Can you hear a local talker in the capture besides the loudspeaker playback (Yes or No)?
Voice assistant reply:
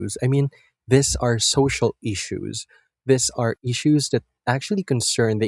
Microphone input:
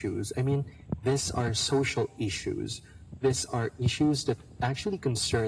No